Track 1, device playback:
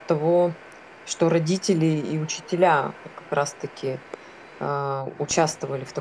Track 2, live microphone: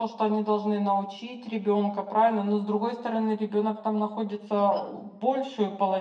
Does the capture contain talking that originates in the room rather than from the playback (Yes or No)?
Yes